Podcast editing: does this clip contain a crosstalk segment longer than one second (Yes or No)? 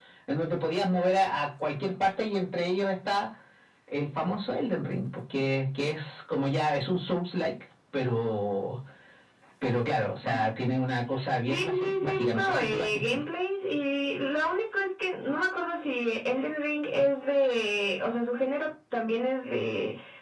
Yes